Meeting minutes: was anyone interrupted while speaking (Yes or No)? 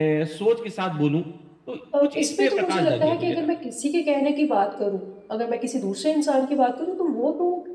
Yes